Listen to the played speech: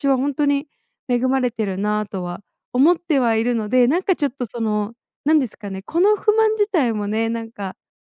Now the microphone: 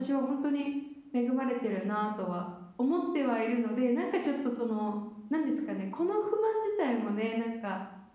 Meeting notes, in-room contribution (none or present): none